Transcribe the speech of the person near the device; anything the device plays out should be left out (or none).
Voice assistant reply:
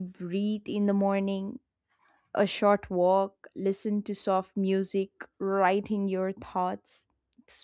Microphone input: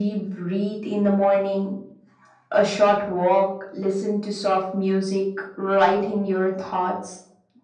none